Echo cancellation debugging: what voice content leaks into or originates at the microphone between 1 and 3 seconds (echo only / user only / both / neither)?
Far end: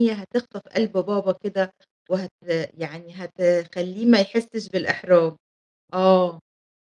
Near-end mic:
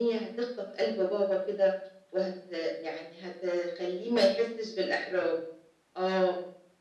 echo only